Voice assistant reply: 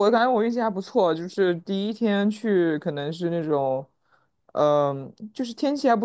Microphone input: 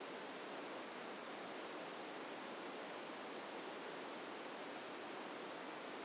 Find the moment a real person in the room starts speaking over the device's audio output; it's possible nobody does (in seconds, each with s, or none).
none